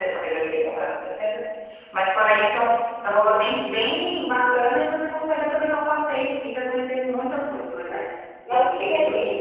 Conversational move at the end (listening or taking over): taking over